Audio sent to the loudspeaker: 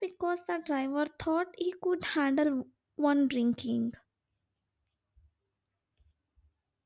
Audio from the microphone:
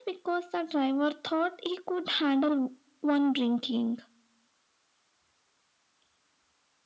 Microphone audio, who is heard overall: echo only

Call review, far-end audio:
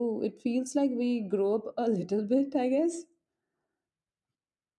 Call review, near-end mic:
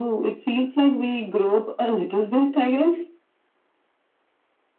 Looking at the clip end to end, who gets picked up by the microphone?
echo only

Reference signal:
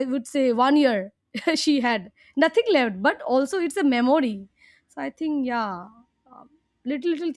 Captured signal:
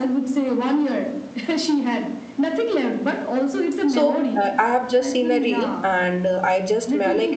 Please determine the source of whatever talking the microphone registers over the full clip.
both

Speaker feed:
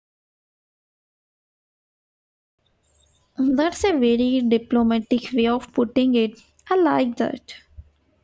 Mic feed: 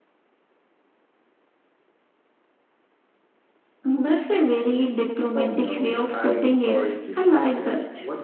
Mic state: both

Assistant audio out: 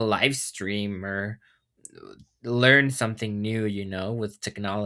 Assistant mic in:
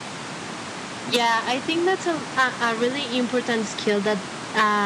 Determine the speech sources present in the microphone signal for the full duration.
user only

